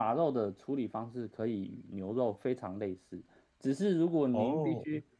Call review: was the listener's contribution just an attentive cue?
Yes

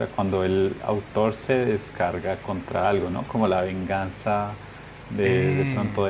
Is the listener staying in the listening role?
Yes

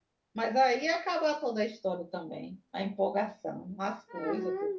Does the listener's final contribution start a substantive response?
Yes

